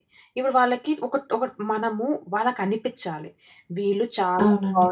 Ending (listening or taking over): listening